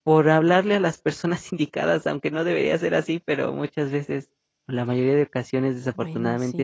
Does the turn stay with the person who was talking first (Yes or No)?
Yes